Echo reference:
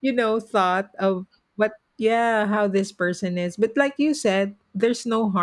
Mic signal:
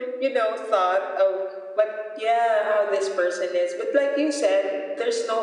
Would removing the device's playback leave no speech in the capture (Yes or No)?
Yes